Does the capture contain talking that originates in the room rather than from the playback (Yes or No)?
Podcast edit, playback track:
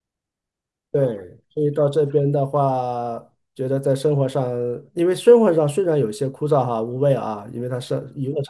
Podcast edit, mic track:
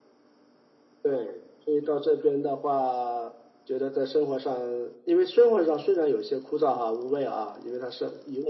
No